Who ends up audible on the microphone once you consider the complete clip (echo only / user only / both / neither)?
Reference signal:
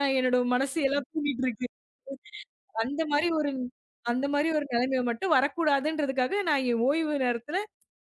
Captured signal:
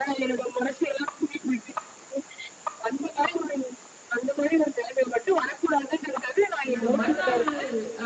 both